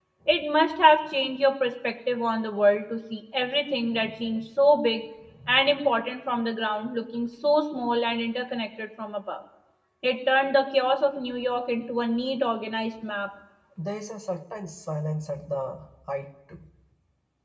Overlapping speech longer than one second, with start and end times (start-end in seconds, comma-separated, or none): none